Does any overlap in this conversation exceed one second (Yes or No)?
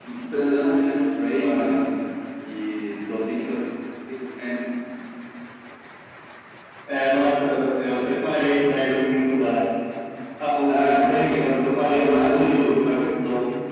Yes